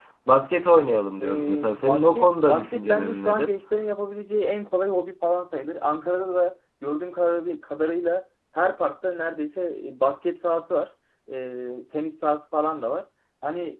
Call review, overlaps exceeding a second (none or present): present